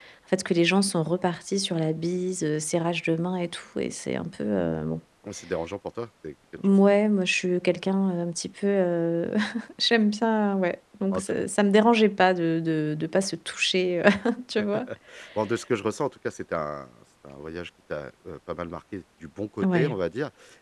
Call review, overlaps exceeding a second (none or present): none